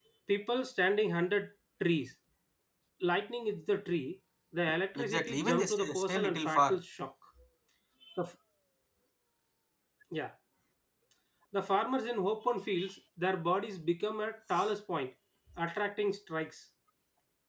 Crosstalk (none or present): present